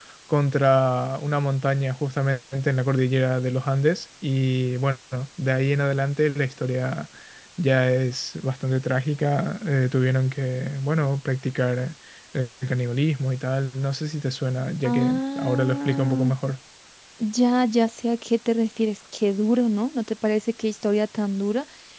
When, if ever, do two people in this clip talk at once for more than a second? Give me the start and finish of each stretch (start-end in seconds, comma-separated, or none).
14.8-16.3